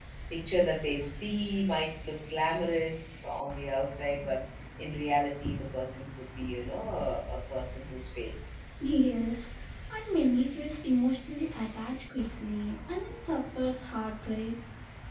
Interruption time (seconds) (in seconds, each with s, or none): none